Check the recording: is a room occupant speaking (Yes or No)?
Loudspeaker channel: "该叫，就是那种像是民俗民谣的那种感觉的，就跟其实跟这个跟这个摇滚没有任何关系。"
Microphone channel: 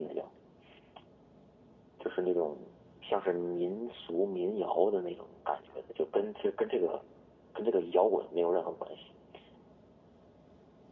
No